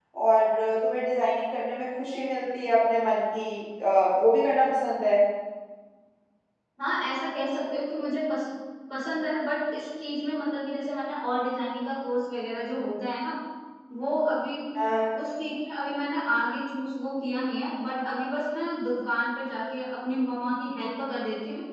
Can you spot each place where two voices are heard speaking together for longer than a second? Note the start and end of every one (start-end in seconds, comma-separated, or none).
none